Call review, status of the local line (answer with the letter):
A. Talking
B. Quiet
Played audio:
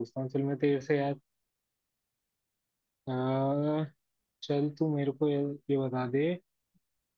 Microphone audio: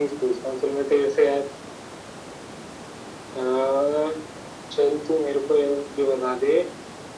B